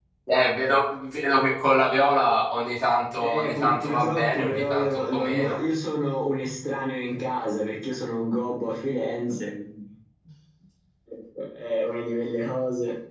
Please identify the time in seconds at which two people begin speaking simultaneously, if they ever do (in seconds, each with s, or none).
3.2 s